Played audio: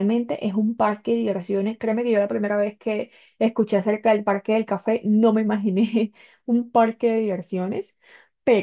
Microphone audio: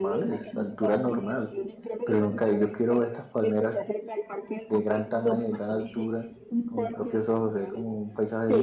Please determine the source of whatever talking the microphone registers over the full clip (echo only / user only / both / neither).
both